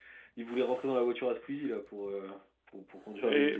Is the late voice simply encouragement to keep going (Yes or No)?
No